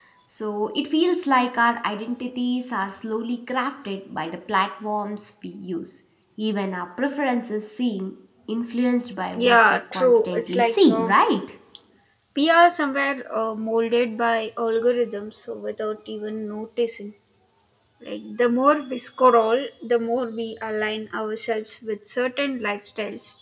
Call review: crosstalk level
present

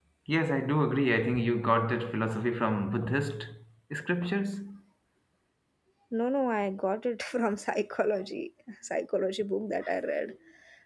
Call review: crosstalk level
none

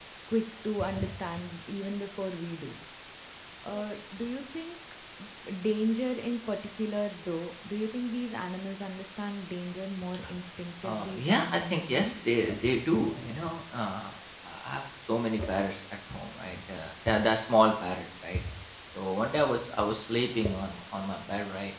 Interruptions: present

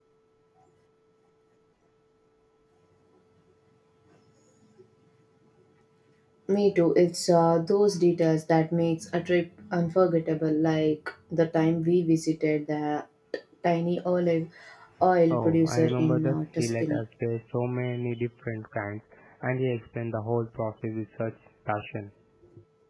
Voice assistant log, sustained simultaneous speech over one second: present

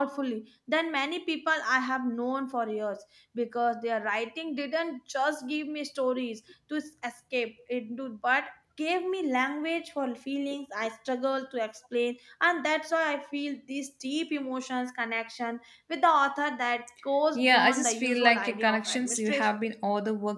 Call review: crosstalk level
present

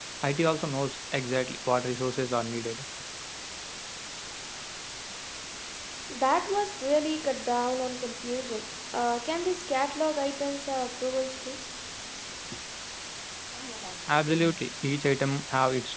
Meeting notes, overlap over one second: none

